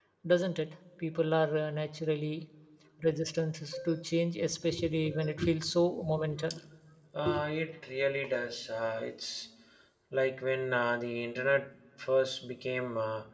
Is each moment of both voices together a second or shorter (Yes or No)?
Yes